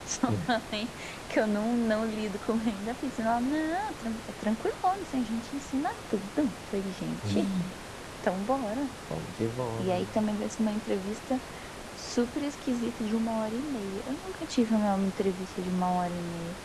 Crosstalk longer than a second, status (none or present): none